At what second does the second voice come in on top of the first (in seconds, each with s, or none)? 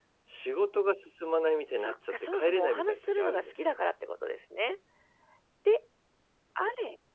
1.8 s